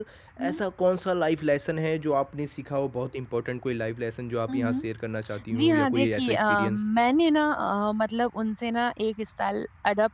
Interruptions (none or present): present